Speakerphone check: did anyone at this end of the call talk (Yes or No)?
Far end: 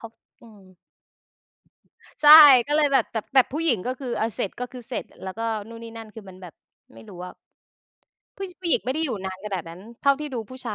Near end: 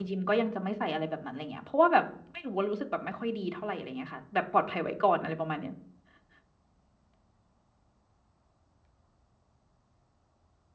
Yes